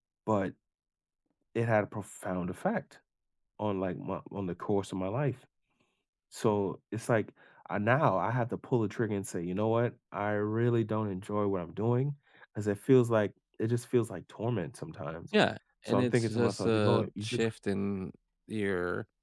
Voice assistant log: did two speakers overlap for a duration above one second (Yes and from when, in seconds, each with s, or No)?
Yes, from 15.9 s